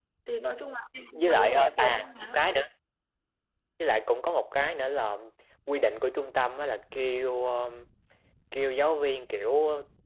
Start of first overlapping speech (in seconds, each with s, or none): 1.1 s